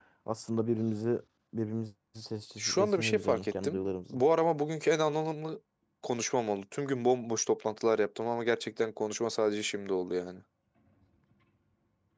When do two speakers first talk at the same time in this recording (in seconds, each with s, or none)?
2.6 s